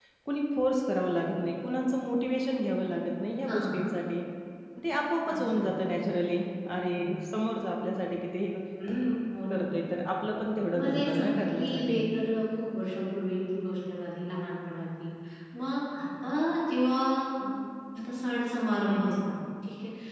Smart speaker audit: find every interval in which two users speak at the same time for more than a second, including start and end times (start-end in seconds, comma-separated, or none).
10.8-12.0